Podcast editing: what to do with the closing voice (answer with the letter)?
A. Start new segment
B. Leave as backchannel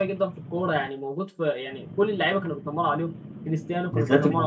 B